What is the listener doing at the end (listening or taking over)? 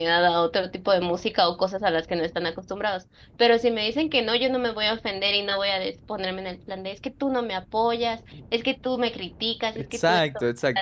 taking over